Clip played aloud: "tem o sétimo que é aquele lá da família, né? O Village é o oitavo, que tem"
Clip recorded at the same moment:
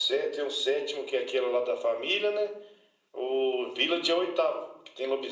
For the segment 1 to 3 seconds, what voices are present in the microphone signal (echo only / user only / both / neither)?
echo only